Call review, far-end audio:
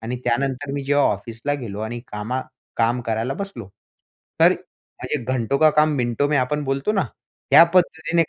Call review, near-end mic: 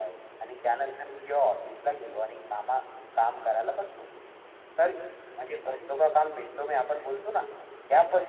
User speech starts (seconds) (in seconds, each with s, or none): none